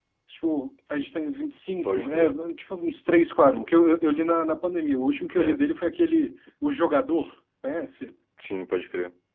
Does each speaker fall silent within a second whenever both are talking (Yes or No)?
Yes